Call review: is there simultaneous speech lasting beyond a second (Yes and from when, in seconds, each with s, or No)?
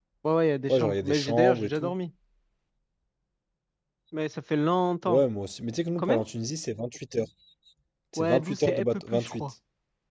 Yes, from 0.7 s